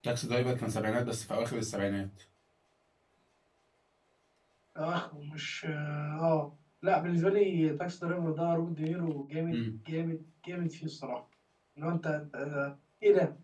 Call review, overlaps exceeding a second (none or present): none